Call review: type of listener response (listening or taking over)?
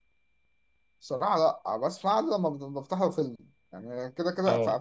listening